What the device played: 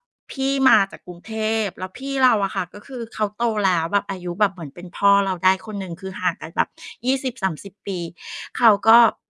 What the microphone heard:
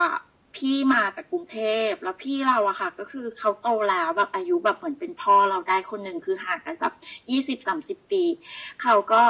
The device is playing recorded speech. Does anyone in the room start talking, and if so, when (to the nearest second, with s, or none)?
none